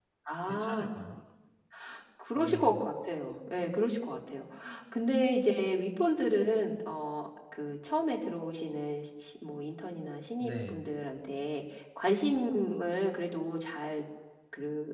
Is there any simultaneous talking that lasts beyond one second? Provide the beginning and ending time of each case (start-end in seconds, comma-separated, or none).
none